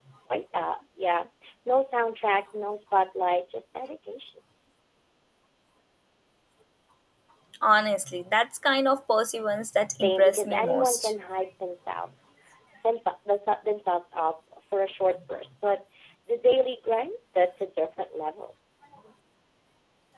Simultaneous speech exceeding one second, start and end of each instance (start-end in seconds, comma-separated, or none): 9.9-11.1